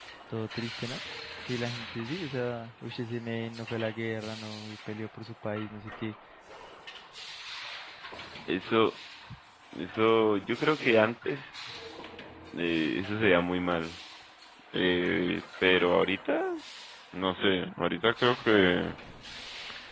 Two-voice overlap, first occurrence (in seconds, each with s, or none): none